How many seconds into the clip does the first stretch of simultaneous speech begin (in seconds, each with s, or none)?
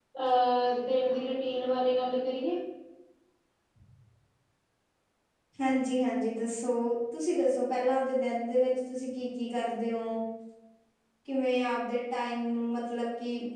none